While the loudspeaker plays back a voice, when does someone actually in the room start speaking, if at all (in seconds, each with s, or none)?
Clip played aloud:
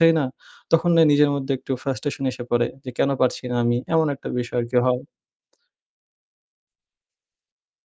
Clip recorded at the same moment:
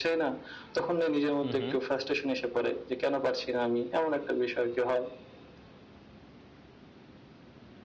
1.4 s